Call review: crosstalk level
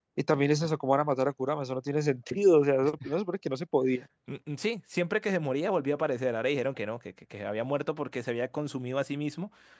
none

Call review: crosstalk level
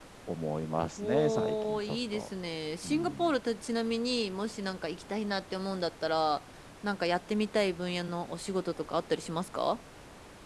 present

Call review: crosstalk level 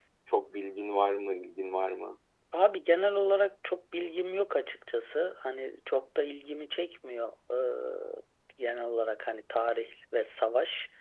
none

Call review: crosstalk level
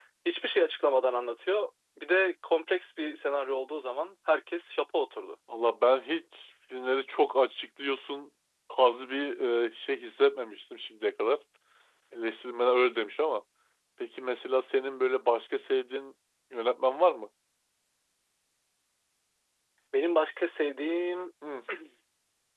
none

